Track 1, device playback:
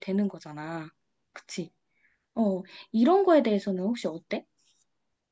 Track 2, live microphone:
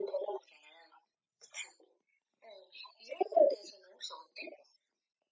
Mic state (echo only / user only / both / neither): echo only